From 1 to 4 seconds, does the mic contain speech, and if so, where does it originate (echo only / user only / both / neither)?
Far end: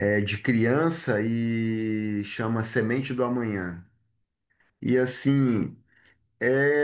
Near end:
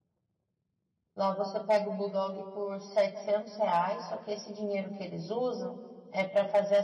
user only